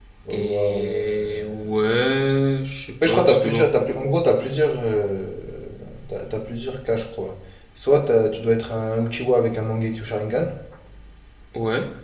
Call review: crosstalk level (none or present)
present